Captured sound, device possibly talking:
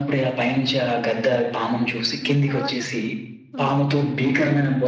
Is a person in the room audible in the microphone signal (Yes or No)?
Yes